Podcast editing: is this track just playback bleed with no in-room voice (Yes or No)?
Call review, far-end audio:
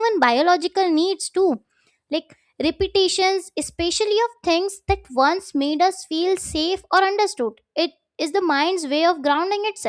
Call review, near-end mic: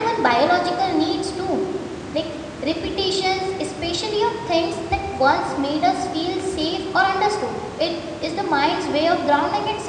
Yes